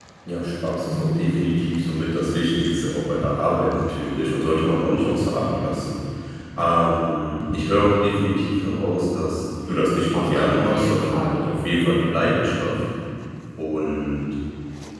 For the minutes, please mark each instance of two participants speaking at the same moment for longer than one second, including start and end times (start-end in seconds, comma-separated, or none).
10.1-11.6